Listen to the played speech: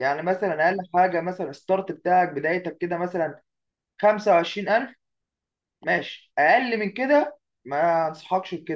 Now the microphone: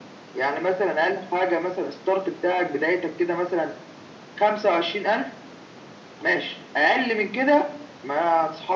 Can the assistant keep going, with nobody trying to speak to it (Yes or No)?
Yes